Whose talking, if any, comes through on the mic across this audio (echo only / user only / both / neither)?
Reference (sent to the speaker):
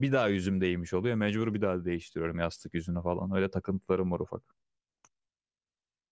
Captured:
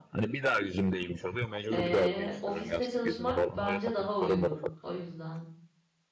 both